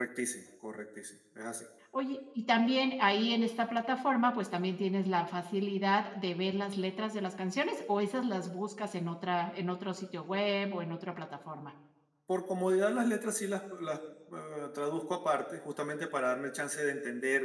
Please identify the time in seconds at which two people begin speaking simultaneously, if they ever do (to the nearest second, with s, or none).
none